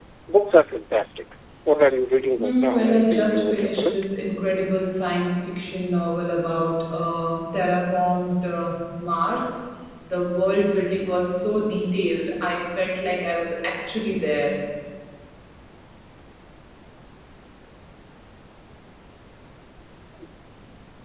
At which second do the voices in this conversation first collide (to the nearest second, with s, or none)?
2 s